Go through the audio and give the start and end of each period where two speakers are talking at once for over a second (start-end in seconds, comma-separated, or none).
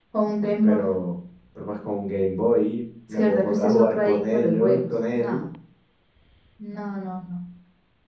3.1-5.4